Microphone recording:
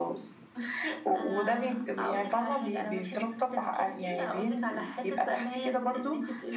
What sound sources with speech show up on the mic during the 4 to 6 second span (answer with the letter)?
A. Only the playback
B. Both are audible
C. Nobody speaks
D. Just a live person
A